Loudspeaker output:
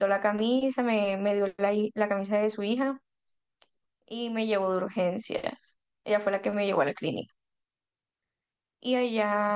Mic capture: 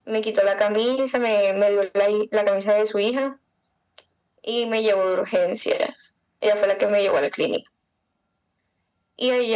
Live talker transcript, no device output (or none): none